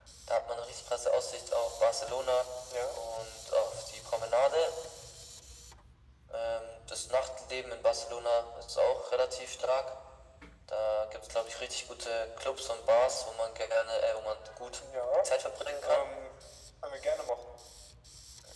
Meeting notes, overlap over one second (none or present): none